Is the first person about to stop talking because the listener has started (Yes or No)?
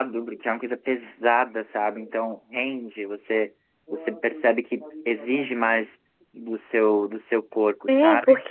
Yes